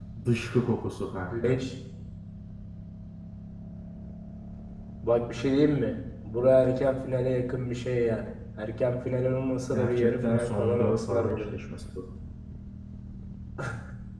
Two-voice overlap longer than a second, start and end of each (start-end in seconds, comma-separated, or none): 9.7-11.5